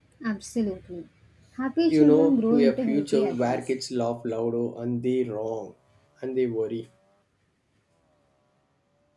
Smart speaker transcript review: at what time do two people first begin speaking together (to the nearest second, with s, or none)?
2 s